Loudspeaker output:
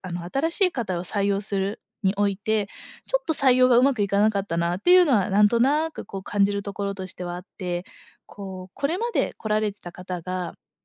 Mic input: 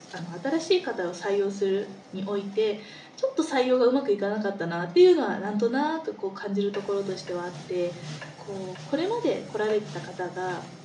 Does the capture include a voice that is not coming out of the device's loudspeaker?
No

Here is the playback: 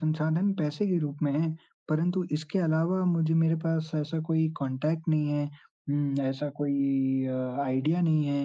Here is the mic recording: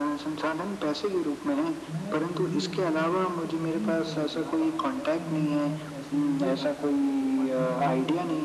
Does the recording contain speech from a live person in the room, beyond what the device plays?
Yes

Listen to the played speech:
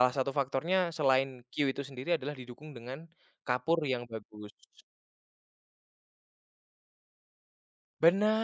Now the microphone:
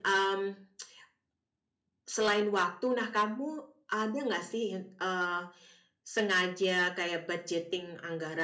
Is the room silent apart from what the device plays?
No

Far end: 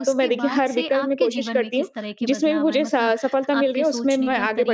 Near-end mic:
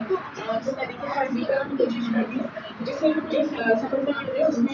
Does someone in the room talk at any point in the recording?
No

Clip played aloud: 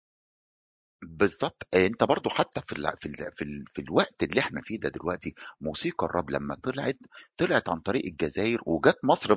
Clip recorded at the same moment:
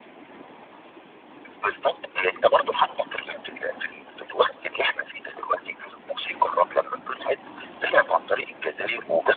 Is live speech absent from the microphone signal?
Yes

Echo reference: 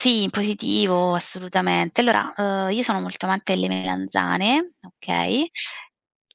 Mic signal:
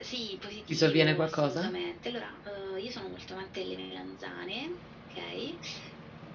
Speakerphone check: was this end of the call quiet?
No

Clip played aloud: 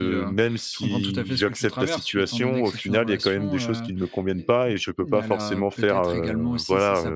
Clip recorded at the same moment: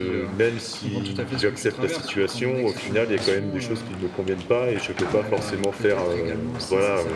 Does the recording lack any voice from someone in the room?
Yes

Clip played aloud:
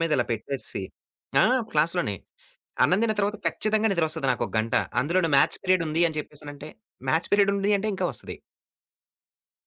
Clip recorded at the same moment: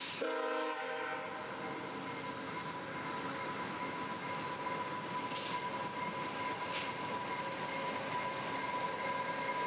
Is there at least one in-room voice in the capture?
No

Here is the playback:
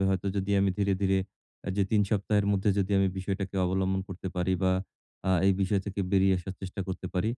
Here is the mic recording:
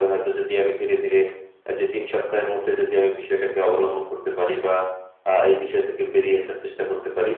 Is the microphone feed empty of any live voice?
Yes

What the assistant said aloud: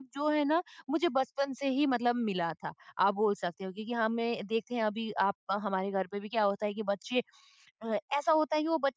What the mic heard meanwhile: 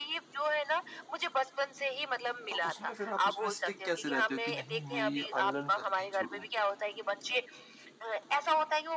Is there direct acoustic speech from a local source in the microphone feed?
Yes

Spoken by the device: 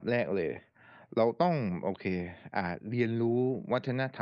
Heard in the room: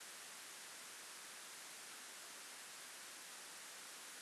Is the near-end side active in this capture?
No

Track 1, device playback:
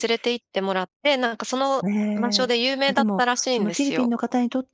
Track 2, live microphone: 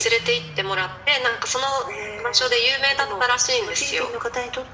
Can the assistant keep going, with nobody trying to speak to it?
Yes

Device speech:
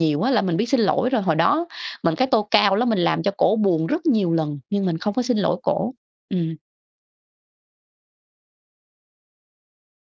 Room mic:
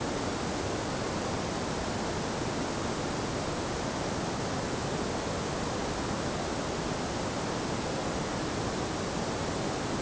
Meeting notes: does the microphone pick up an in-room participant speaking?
No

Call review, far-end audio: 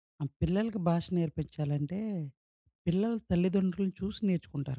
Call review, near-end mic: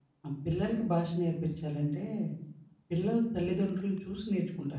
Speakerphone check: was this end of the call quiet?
Yes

